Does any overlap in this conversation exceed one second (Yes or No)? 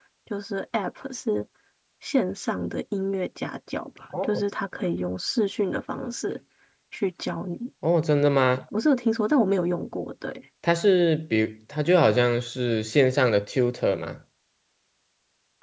No